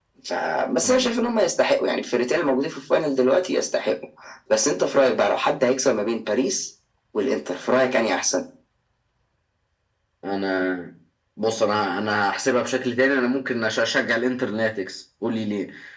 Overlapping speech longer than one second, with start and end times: none

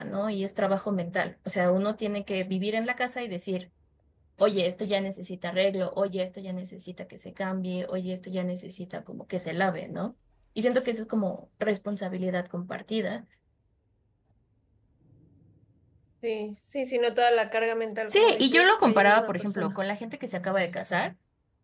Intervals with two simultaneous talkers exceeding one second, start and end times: 18.1-19.8

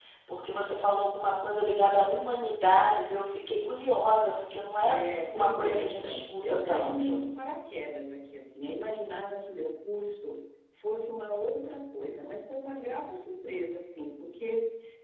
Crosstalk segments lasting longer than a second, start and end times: 4.9-7.2

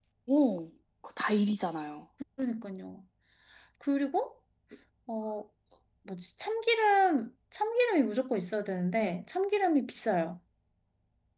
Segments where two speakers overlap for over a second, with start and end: none

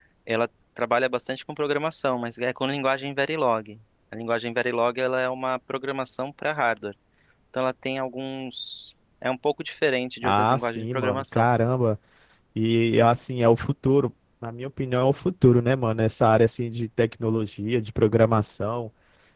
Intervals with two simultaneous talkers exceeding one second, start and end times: 10.2-11.5

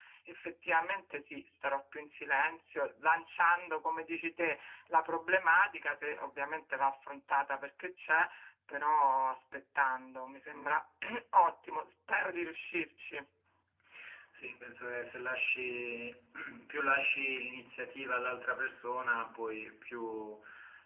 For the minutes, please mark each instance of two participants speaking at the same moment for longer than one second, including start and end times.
none

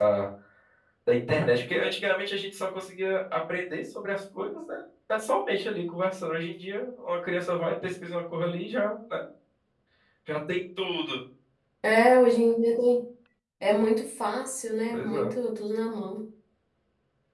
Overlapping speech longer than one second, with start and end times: none

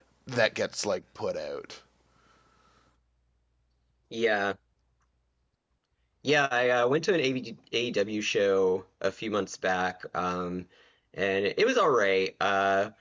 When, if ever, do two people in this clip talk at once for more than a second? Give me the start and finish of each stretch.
none

